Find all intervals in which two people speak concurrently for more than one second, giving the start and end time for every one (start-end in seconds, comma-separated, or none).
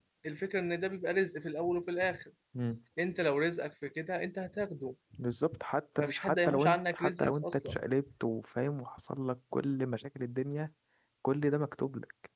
6.0-7.8